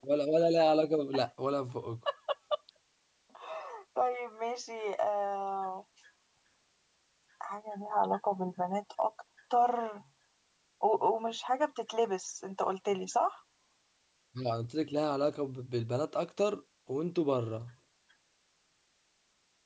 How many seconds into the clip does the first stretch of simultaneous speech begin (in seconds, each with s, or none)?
none